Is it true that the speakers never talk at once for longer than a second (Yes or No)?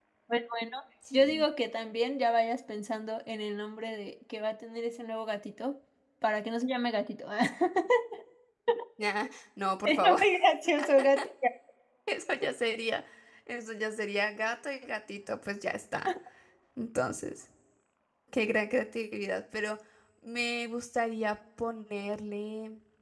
Yes